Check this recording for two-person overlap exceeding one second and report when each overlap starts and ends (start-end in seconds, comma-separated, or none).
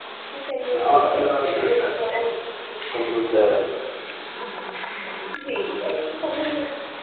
0.7-2.1